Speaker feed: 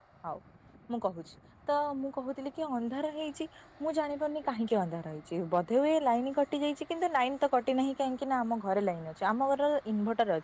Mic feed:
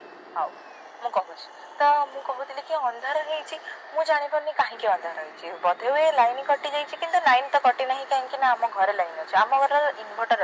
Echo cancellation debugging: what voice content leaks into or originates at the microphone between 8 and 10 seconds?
echo only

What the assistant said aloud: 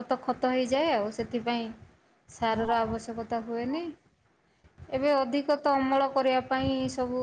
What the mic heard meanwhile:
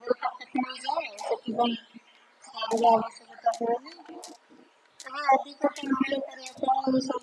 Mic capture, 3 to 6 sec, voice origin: echo only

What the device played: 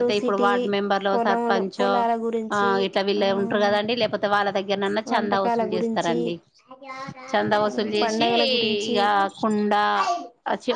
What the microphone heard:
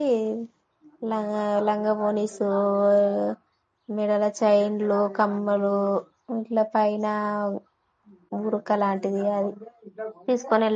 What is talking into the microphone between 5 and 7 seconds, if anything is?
user only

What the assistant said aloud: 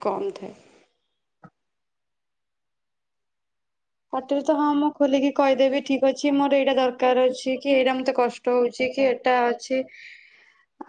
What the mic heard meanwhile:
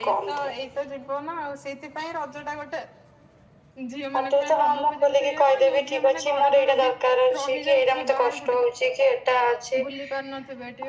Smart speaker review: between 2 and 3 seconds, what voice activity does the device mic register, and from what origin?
user only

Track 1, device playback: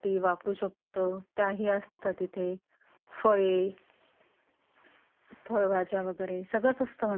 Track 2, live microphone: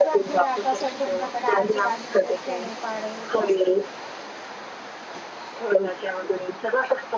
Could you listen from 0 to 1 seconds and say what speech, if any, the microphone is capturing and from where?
both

